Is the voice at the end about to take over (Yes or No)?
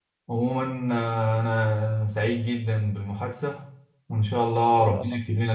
No